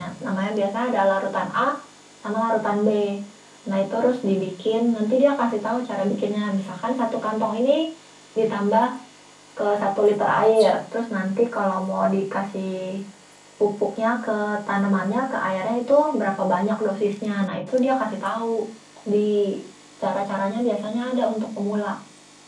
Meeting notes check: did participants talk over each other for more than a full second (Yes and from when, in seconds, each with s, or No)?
No